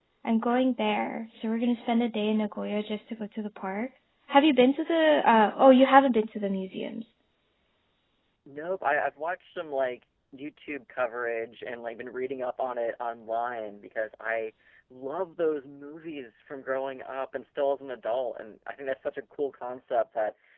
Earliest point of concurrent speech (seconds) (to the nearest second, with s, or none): none